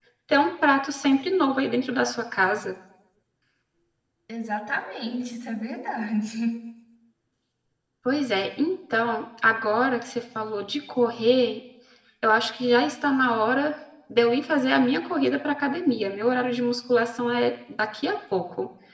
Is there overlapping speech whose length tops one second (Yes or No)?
No